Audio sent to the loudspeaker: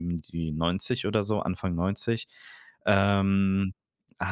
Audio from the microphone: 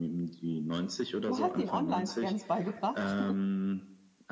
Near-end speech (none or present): present